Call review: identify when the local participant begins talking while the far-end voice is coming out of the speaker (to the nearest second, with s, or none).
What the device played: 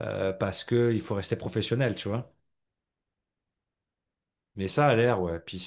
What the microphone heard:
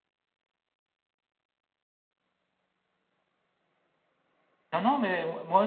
5 s